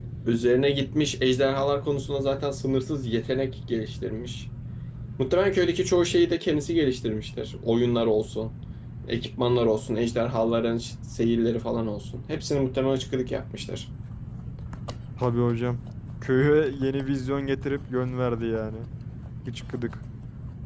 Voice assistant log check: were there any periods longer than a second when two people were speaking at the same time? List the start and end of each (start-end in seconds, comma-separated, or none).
none